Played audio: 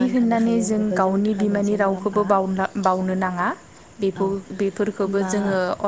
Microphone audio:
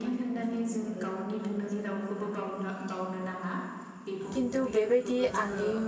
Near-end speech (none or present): present